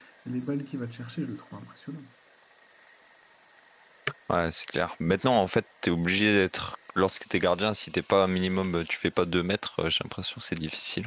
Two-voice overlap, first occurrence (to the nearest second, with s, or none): none